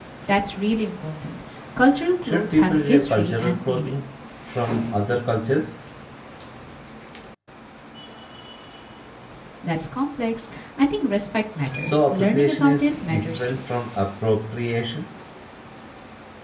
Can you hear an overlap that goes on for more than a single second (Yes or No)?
Yes